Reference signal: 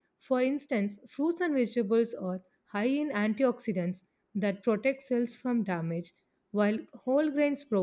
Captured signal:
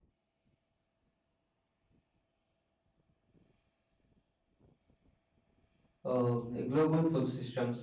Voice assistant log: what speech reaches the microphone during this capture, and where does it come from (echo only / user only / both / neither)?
user only